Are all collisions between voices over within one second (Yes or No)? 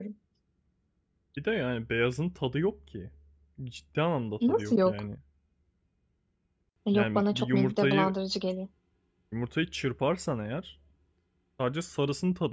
No